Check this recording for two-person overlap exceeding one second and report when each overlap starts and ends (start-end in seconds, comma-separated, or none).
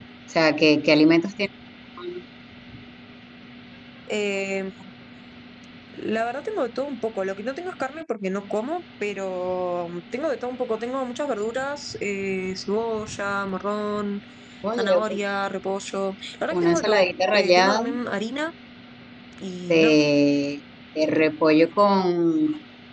16.6-17.8